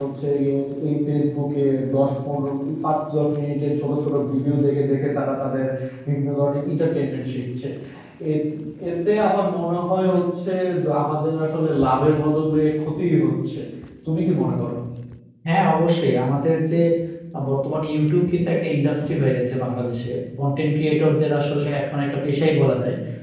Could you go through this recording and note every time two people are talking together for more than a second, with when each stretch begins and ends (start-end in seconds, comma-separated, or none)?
none